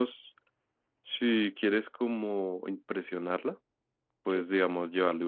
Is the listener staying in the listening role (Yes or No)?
Yes